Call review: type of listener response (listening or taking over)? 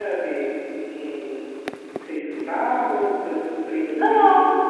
taking over